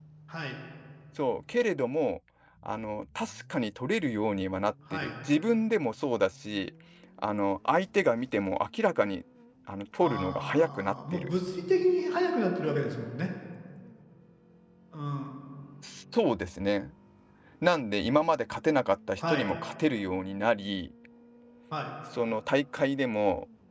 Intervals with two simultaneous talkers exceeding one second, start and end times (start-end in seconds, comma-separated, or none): 10.0-11.3